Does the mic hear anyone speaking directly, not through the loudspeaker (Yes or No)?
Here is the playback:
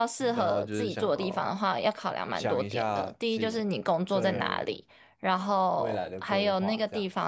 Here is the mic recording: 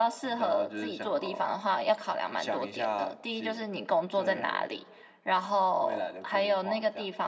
No